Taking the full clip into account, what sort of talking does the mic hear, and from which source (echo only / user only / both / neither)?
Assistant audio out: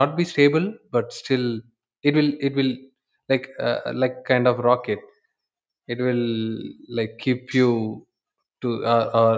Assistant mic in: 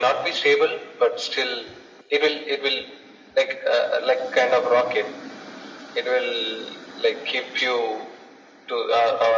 echo only